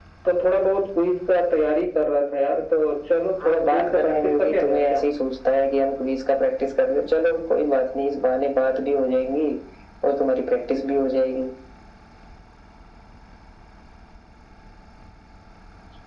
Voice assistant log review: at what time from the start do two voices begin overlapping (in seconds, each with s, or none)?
3.4 s